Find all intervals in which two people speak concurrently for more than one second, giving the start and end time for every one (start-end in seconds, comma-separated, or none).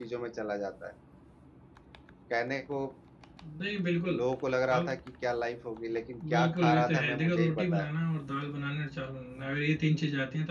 6.3-7.9